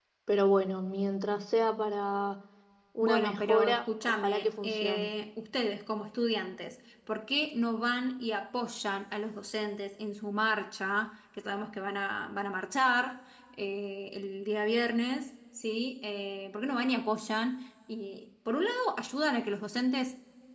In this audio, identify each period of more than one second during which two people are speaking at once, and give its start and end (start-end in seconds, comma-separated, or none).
3.0-5.1